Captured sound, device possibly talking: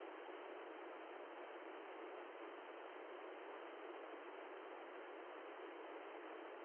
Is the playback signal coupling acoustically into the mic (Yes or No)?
No